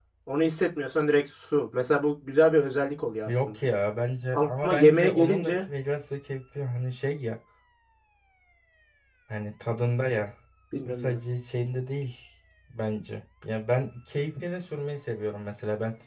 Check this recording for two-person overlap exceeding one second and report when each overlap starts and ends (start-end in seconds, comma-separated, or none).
4.3-5.5